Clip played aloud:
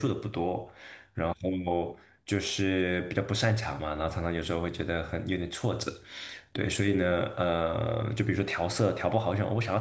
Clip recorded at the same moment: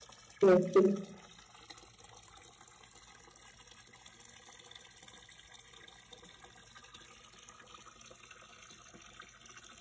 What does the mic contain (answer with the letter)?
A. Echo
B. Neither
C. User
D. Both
C